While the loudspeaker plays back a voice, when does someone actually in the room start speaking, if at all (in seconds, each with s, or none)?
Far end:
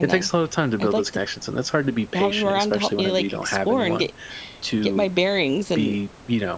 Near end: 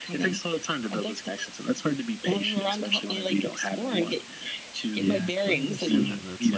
5.0 s